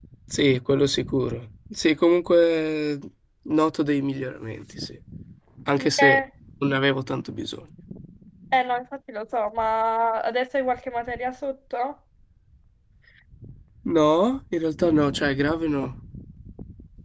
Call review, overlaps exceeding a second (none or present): none